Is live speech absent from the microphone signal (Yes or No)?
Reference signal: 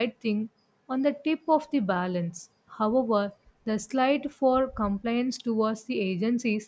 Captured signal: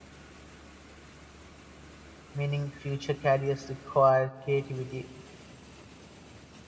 No